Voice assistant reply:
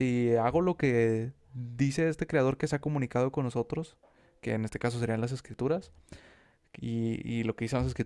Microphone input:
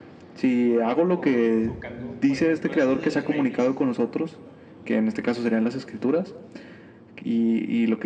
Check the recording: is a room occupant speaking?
Yes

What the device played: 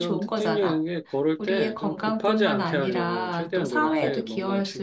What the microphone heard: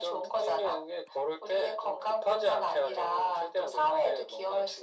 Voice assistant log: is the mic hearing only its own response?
Yes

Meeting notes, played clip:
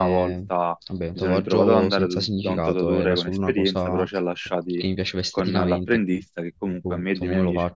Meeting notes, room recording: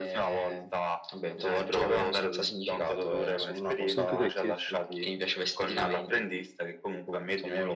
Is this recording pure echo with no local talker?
No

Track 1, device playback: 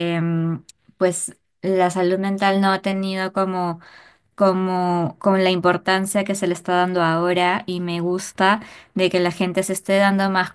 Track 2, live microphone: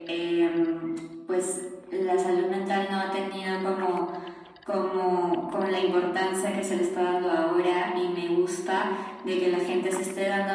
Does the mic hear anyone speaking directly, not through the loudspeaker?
No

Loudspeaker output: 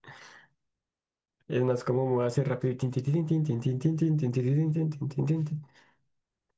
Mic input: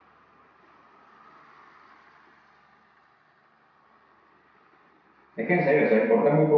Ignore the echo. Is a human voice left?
Yes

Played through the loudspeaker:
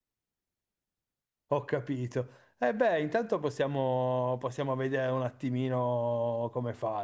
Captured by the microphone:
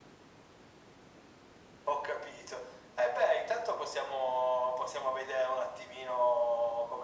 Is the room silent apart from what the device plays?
Yes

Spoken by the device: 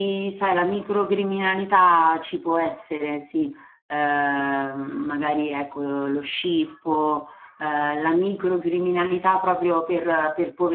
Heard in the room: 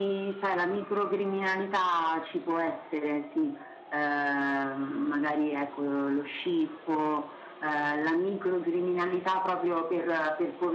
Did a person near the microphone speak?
No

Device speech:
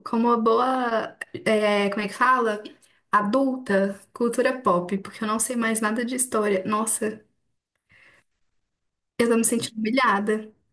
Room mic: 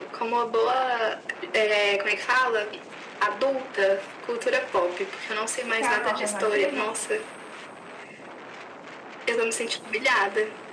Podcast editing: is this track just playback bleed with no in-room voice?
No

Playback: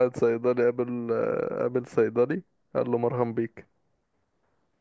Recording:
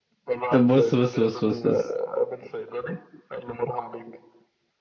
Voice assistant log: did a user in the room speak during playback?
Yes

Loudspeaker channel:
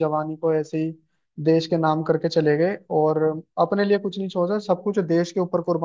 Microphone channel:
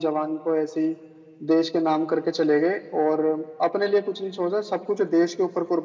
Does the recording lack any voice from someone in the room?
Yes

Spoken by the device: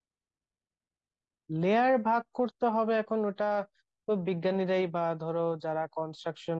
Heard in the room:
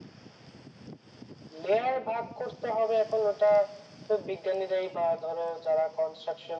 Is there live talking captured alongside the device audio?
No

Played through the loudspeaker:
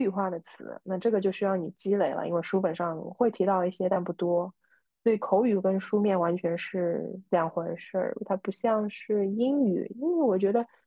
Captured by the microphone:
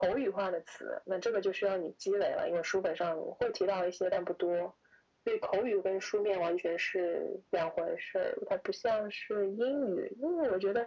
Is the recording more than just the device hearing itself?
No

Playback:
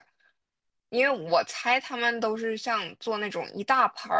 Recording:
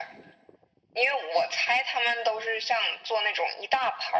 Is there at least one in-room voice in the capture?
No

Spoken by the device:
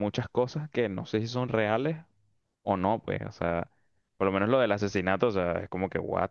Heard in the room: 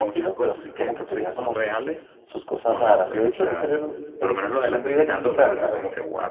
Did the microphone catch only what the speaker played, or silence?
No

